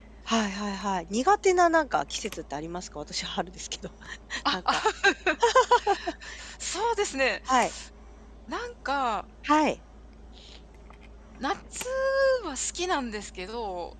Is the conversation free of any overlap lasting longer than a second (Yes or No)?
Yes